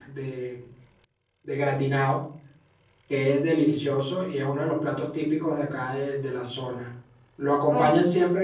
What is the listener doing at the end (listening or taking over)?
listening